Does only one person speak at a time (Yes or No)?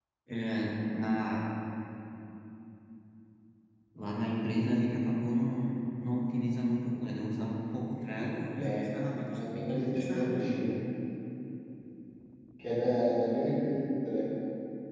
No